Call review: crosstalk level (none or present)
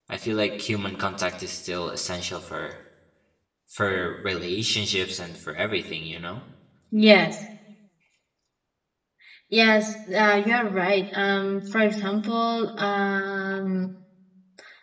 none